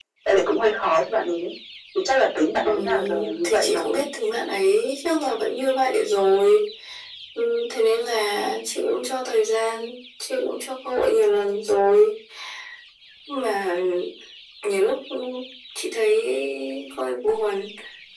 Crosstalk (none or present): present